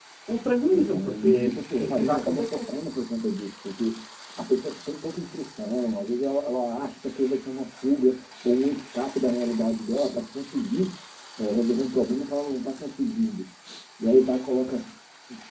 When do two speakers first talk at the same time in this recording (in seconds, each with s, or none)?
0.7 s